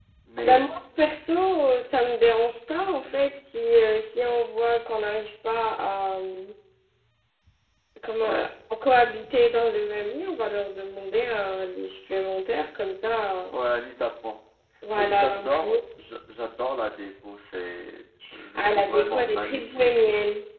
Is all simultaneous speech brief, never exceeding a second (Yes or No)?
No